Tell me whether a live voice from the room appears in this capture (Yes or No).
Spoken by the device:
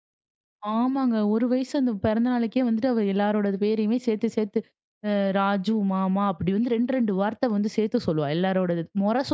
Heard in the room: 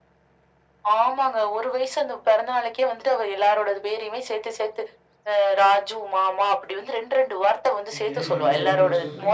Yes